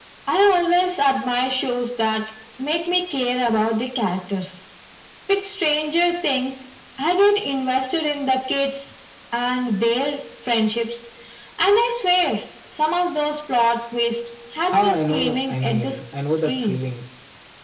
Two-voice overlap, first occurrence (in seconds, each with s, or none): 14.6 s